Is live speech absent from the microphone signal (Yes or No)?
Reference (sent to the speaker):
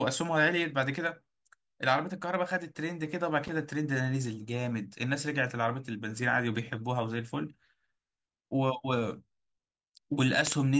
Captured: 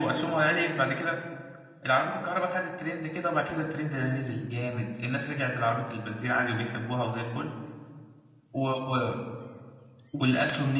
Yes